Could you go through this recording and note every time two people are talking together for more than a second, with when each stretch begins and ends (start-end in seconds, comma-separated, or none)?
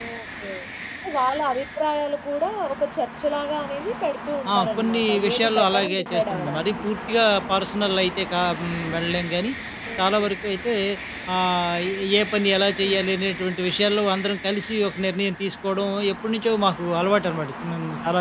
4.5-6.7